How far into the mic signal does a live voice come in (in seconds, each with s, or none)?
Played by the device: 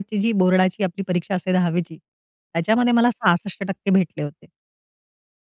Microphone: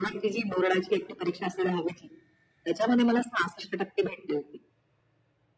none